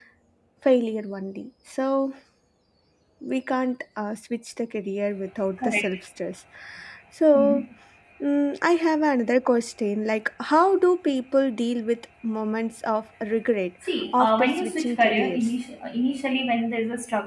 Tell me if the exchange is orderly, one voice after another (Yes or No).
No